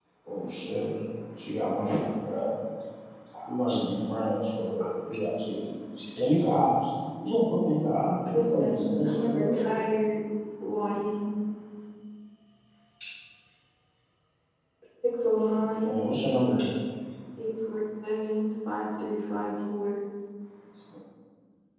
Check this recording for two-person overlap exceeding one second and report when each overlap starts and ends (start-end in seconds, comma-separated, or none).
8.3-9.7